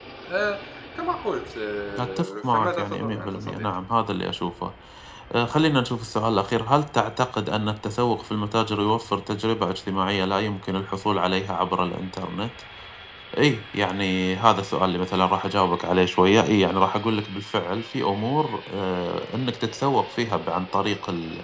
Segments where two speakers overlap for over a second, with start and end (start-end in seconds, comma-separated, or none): 2.0-3.6